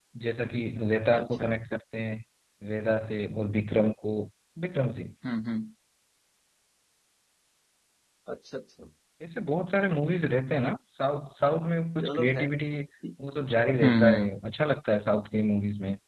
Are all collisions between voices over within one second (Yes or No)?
Yes